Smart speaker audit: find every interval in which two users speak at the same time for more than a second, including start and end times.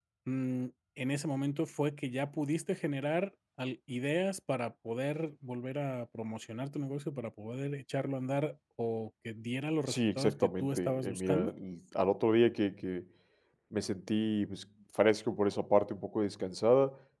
9.9-11.5

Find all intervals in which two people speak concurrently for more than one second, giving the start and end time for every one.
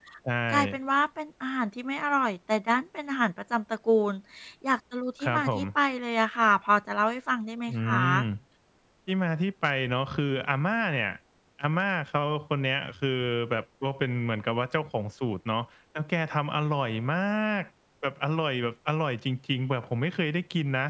none

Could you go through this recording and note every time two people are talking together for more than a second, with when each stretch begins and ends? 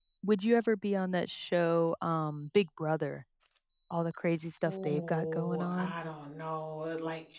4.7-5.9

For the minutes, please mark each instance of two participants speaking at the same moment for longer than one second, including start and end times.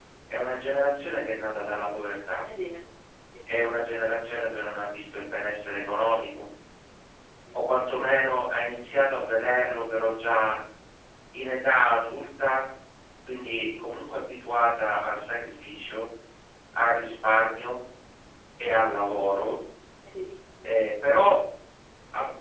none

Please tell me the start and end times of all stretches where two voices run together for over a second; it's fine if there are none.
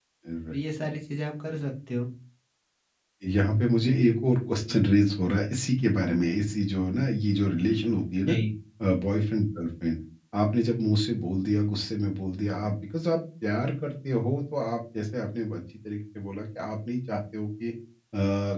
none

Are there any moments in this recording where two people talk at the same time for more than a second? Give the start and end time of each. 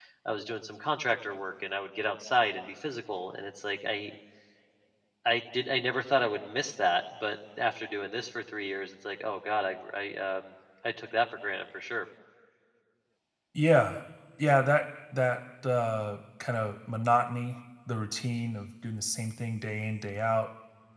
none

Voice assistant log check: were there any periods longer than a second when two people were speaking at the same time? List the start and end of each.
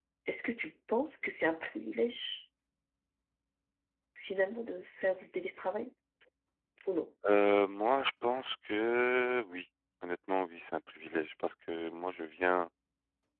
none

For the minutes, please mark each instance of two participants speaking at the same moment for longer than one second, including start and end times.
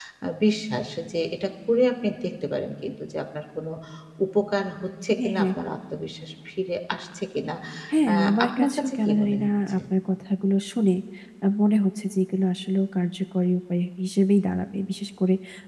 8.1-9.8

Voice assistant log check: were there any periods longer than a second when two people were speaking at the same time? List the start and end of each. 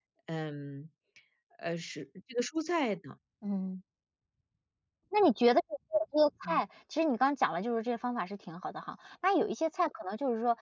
none

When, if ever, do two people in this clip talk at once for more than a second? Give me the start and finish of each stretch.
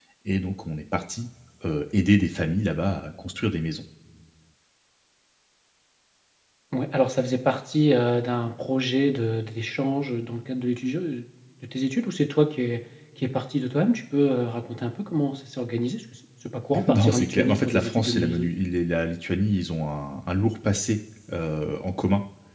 16.9-18.5

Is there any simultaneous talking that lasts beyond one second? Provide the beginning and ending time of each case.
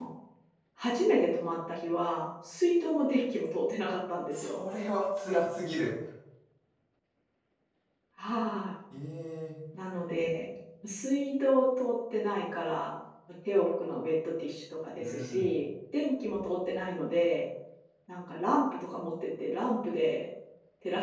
none

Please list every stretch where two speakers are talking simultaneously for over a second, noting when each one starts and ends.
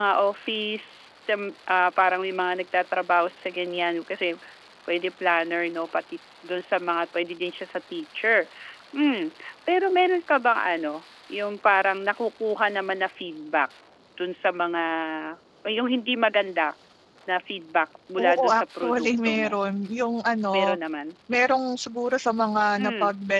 18.2-19.6

